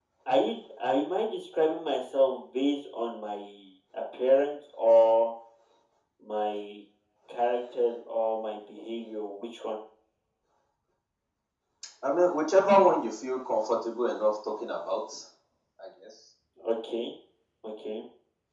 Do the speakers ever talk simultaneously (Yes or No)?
No